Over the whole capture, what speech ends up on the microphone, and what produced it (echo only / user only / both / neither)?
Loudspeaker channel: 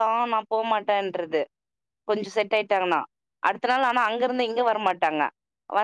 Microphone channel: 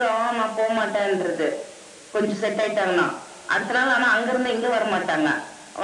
echo only